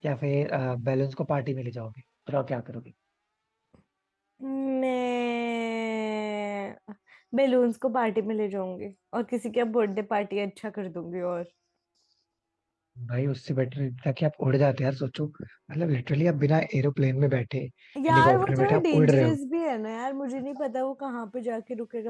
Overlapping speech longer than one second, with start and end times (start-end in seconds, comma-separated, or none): 18.1-19.4